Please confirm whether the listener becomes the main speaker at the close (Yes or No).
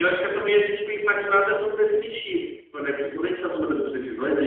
No